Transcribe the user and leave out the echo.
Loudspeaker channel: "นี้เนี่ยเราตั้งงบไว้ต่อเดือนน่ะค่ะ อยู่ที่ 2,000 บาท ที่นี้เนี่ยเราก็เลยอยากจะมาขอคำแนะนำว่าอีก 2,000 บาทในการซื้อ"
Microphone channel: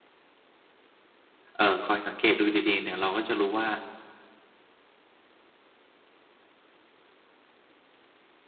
อ่า คอยสังเกตดูดี ๆ เนี่ย เราก็จะรู้ว่า

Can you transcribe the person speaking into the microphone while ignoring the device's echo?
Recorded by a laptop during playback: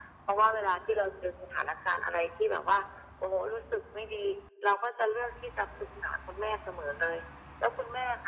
none

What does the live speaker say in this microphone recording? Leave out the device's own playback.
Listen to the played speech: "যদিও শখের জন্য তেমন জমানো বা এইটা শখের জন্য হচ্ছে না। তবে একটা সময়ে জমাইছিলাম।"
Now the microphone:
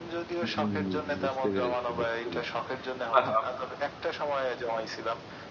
হুম, বুঝতে পেরেছি, বুঝতে পেরেছি। বাহ!

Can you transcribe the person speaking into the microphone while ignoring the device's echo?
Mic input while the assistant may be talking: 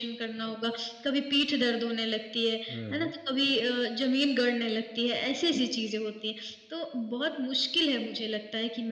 अ, हाँ।

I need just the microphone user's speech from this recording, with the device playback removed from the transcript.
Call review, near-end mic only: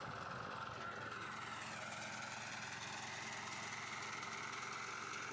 none

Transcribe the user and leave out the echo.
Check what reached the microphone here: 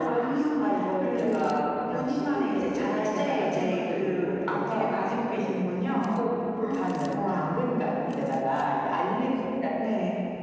아.

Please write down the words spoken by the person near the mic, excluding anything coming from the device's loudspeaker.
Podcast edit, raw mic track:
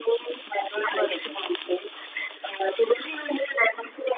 बरोबर.

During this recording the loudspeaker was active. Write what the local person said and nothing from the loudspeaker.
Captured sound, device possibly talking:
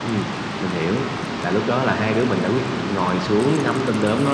none

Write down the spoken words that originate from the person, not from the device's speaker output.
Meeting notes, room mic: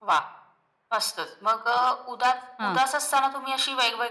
हां. हां.

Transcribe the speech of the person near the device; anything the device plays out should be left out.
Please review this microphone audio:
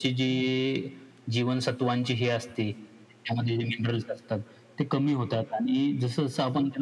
none

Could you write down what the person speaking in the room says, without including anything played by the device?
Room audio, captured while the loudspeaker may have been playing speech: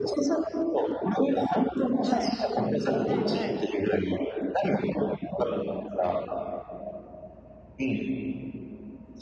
はい。はいはい。

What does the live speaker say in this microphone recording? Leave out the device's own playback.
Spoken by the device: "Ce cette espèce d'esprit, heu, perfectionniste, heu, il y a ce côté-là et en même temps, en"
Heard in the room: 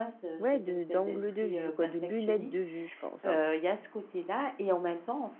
ouais, de d'angle de vue quoi, de lunettes de vue, je pense hein.

